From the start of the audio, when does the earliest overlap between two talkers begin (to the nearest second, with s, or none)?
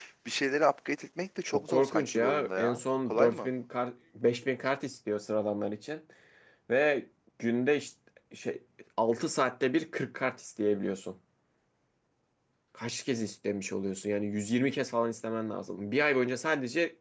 1 s